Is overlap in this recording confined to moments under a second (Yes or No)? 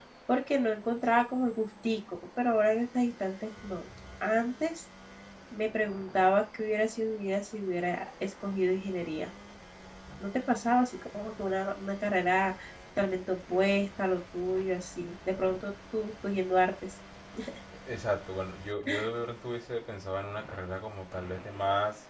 Yes